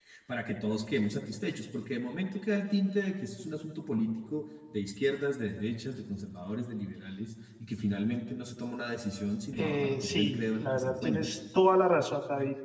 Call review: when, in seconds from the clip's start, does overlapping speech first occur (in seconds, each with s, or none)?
9.5 s